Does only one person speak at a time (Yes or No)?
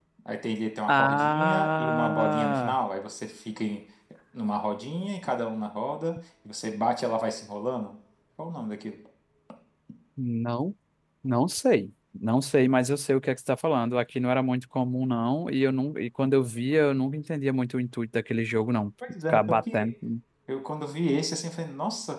No